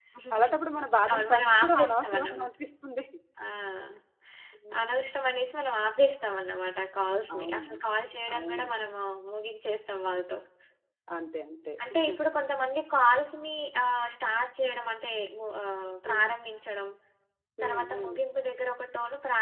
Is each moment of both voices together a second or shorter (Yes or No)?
No